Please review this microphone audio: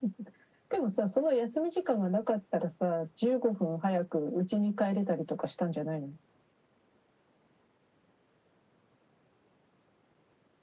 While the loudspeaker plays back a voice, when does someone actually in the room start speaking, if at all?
none

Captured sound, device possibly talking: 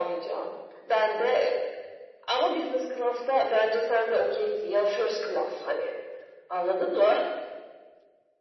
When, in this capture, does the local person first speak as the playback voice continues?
none

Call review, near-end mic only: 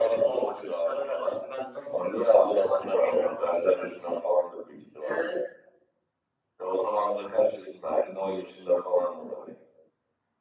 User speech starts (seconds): none

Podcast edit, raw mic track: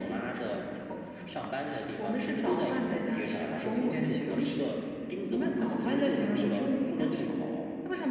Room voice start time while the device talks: none

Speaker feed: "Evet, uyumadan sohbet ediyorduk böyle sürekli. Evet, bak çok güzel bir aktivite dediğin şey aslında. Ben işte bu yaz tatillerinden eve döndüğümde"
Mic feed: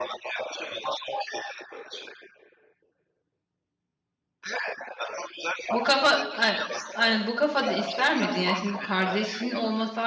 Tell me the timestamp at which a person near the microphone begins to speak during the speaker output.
6 s

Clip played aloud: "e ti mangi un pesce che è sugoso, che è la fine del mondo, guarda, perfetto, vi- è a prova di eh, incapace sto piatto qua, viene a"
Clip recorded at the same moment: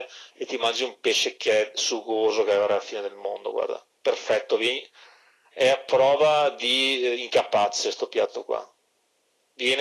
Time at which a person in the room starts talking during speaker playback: none

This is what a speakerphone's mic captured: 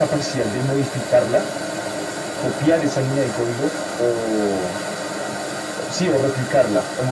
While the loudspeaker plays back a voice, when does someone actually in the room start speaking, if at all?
none

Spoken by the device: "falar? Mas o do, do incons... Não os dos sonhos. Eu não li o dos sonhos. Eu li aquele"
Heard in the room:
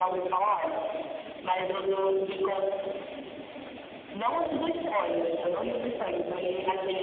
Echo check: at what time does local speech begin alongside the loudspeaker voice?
none

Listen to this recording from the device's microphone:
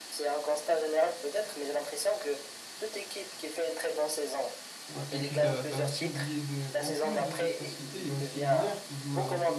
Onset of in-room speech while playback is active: 5 s

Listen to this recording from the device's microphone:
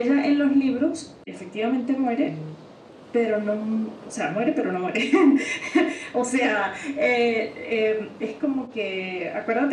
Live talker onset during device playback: 2 s

